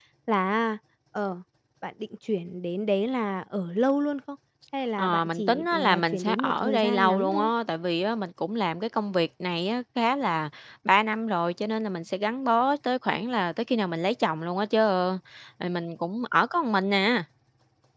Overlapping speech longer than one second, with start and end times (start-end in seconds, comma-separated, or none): 5.0-7.5